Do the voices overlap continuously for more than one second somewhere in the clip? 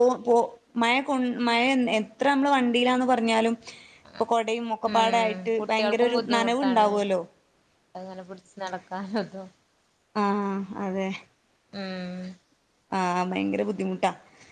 Yes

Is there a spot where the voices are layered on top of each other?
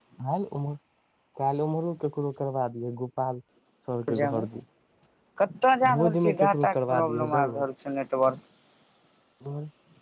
Yes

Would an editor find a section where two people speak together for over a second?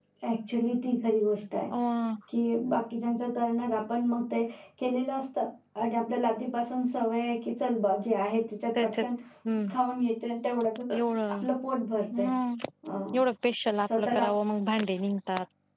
No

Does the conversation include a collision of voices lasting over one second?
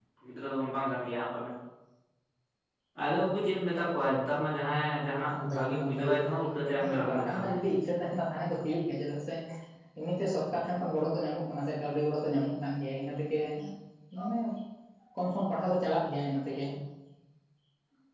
Yes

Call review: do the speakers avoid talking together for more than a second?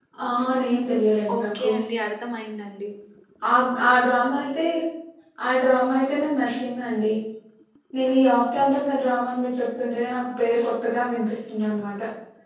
Yes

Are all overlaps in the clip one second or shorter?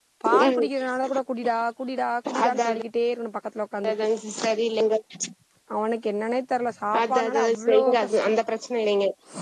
No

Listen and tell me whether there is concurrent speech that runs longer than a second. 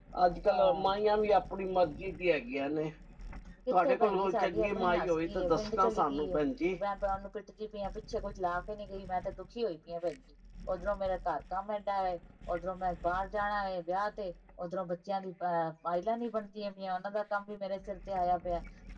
Yes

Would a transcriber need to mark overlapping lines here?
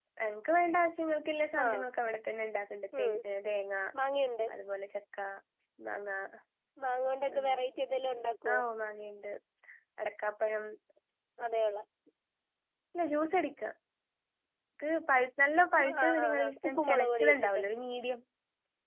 Yes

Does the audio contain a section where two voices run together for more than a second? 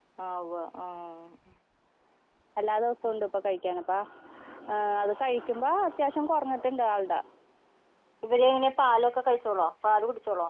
No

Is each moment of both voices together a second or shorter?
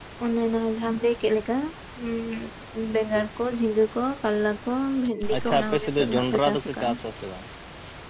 No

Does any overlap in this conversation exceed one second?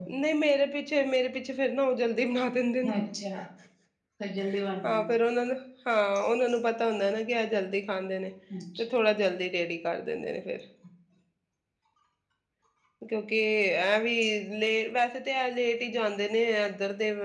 No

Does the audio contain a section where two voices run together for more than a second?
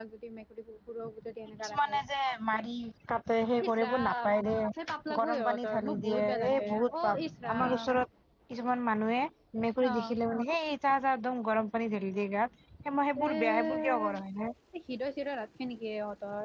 Yes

